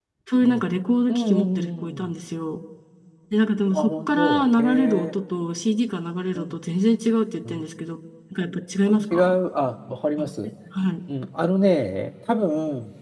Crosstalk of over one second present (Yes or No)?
Yes